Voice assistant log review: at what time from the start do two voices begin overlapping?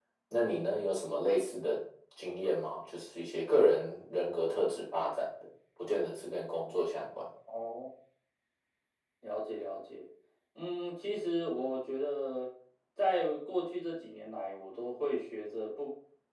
none

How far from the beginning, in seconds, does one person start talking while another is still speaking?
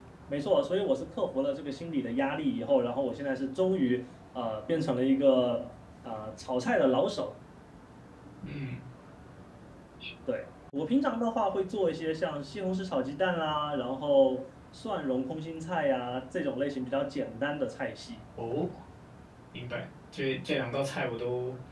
none

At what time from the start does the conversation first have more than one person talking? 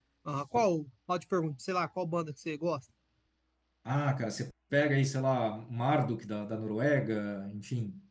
none

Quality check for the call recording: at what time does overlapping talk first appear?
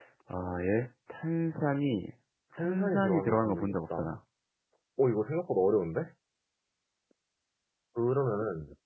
2.6 s

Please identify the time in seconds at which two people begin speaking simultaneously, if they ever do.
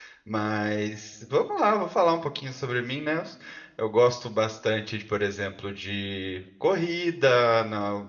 none

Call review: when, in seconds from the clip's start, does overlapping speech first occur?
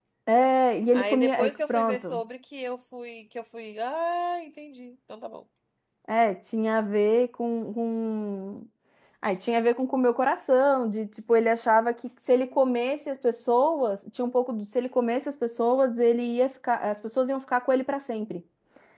0.9 s

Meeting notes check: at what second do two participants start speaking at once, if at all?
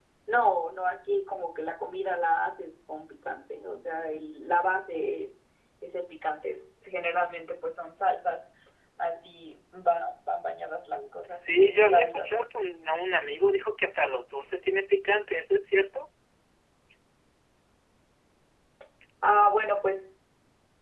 10.9 s

